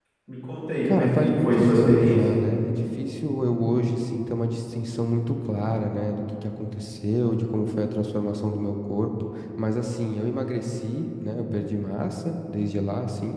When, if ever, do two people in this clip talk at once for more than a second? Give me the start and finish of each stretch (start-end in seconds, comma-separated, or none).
0.9-2.2